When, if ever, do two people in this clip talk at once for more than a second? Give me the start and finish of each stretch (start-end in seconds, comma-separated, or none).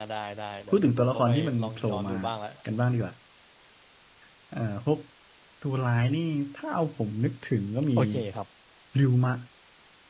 0.7-2.1